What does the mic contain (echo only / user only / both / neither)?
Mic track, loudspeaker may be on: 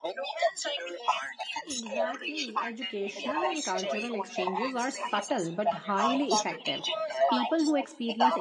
both